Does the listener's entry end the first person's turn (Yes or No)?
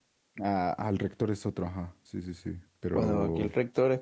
Yes